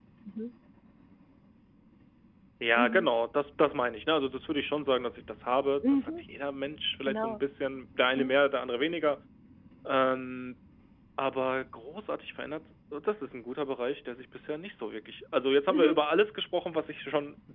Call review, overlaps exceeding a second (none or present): none